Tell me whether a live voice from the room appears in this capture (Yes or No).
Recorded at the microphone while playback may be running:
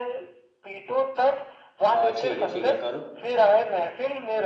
Yes